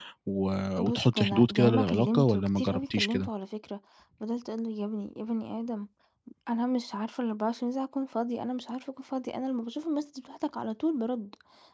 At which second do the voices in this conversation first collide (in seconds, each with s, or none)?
0.8 s